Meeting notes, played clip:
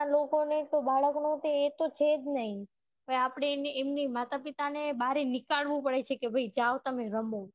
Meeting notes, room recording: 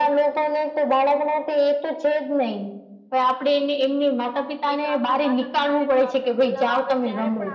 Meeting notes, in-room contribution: present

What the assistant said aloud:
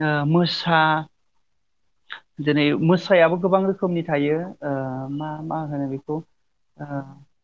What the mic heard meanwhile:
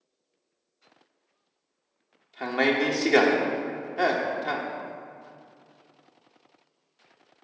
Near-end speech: present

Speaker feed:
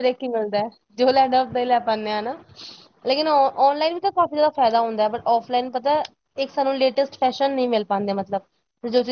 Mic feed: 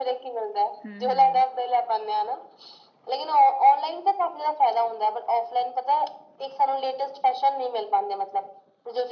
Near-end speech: present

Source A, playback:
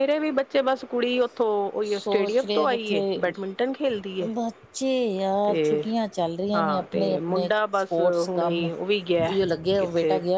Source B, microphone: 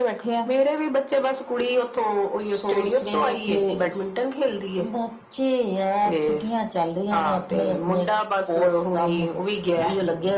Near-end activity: none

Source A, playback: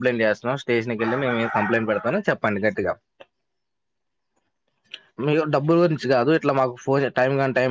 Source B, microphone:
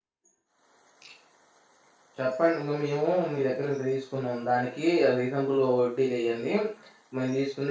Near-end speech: present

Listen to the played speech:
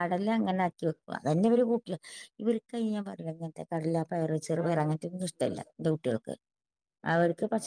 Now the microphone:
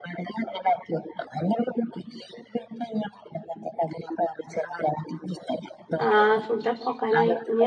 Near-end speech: present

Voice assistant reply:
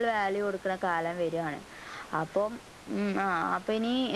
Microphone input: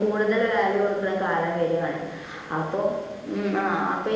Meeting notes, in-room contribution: none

